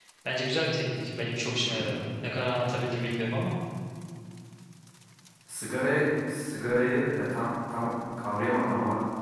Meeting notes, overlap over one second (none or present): none